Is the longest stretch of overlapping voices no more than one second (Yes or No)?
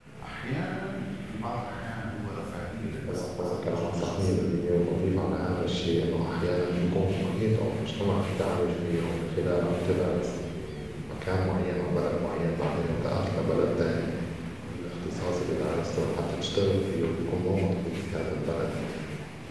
No